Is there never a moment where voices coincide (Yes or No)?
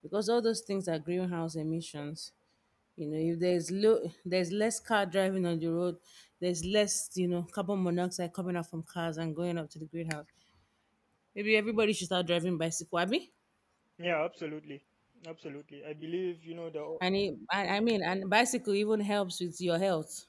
Yes